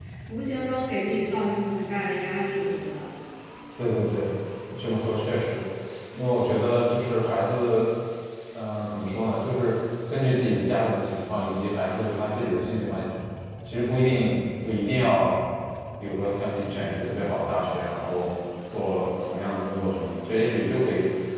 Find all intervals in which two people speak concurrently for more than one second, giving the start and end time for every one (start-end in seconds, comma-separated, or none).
none